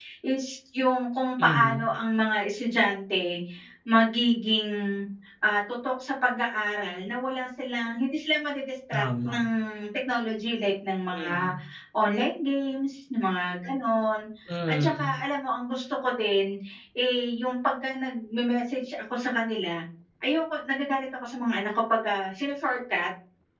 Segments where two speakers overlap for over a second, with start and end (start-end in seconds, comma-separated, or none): none